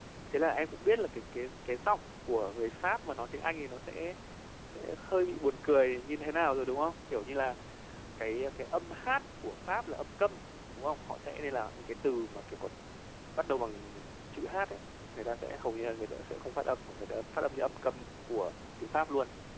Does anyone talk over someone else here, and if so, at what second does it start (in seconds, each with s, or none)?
none